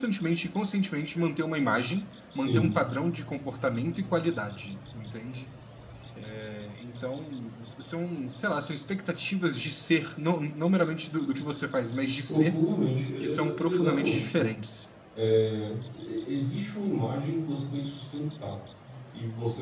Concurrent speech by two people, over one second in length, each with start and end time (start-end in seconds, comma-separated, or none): 13.2-14.5